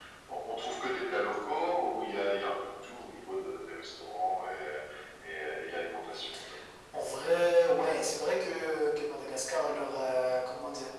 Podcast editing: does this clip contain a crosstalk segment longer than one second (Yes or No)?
No